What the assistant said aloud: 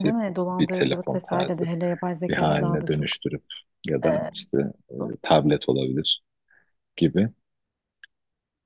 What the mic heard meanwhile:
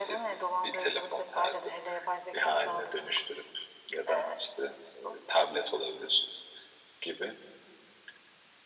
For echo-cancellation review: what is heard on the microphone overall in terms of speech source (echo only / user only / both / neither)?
echo only